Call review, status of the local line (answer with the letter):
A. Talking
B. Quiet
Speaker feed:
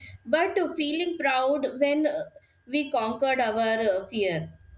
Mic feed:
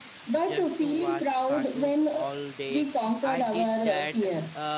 A